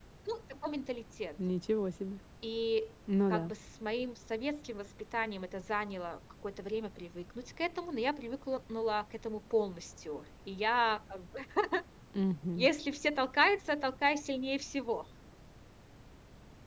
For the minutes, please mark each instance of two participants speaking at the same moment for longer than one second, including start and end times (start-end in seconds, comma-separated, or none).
none